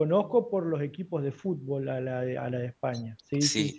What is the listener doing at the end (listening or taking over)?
taking over